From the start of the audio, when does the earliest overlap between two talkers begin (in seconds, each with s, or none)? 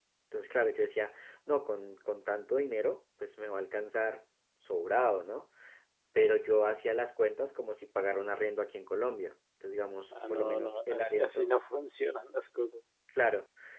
10.1 s